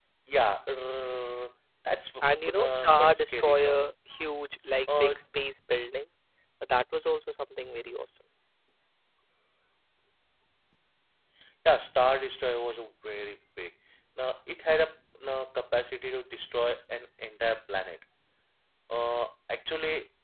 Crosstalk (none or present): present